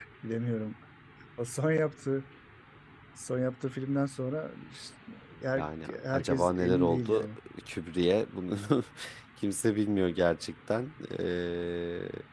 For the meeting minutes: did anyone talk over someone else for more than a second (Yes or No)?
Yes